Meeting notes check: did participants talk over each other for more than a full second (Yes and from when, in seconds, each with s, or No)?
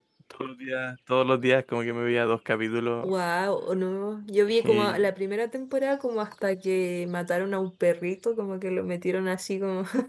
No